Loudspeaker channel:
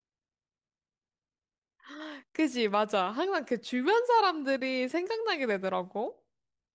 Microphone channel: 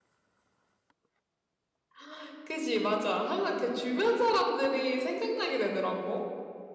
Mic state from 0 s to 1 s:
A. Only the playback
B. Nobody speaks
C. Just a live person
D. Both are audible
B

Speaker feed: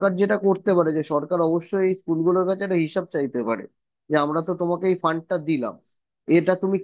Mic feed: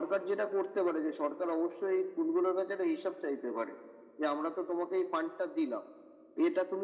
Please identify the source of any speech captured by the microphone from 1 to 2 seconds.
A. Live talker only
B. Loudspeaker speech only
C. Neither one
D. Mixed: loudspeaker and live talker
B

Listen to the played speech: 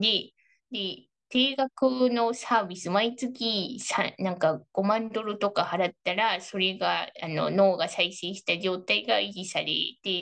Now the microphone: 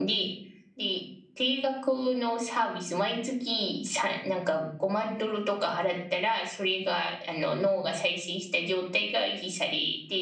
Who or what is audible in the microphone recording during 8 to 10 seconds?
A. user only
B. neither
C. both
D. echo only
D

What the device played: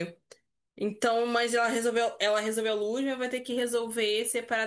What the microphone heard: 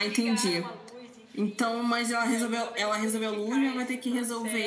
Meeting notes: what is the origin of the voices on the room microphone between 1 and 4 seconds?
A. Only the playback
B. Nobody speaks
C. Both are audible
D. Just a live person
C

